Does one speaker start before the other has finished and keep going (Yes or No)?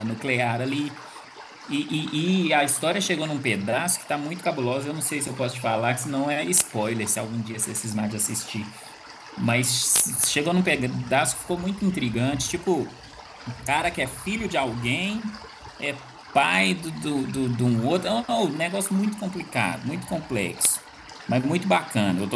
No